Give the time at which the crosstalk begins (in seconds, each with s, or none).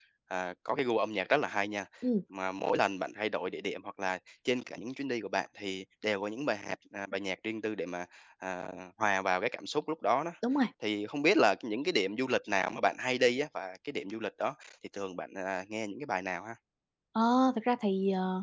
none